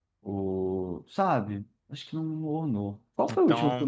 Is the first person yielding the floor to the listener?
No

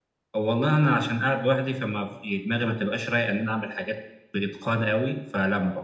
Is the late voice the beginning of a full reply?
No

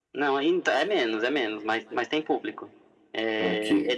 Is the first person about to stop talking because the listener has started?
No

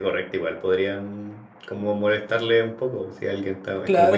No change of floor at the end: No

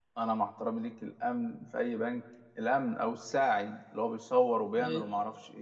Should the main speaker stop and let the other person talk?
No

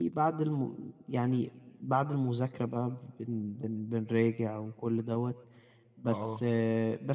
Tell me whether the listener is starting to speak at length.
No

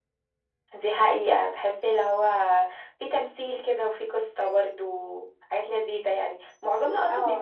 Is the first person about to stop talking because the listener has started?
No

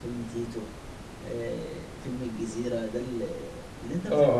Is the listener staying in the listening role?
No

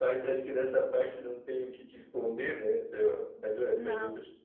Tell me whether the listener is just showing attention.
Yes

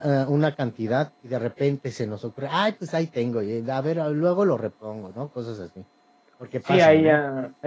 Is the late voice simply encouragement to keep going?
No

